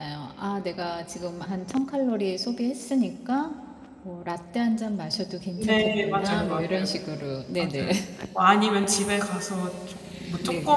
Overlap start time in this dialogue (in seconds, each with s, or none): 5.6 s